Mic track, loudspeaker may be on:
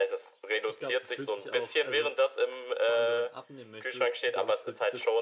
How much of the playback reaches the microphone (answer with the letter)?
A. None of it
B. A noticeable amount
B